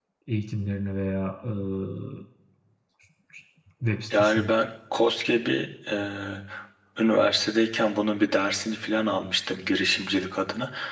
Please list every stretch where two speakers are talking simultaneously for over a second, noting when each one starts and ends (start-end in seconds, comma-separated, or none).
none